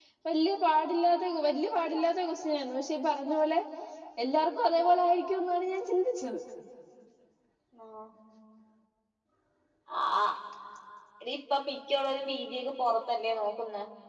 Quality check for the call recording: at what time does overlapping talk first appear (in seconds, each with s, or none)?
none